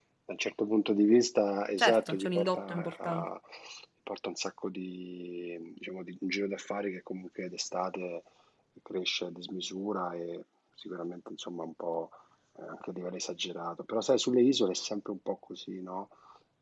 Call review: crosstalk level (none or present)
present